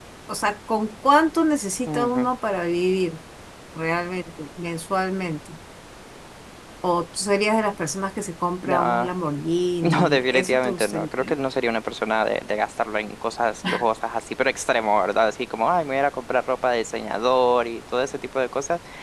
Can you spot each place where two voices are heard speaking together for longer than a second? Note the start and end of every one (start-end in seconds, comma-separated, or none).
9.8-11.4